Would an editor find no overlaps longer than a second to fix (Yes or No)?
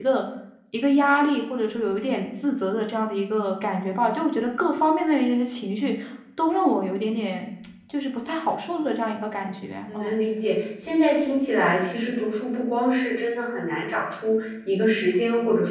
Yes